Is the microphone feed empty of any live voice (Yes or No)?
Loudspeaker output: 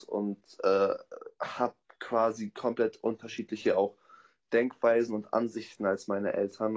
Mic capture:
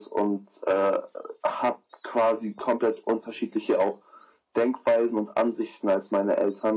Yes